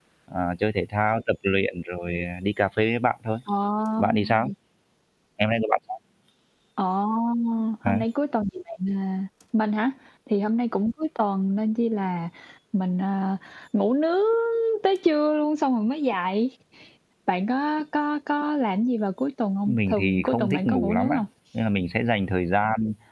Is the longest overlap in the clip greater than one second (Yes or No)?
Yes